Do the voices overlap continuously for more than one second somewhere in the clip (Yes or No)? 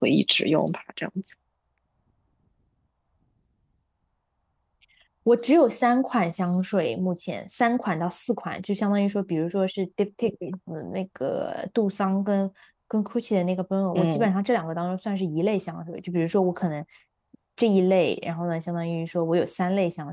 No